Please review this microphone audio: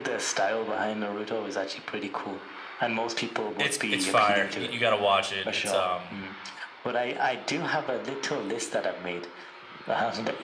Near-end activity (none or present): present